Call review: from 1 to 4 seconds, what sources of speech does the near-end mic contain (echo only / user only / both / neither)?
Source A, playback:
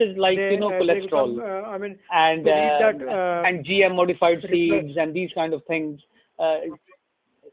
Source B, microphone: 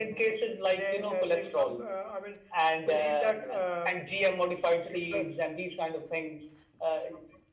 echo only